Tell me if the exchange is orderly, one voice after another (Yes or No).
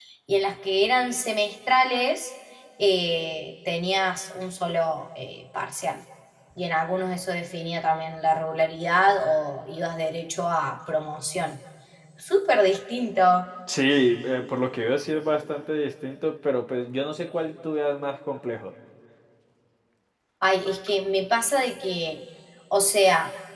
Yes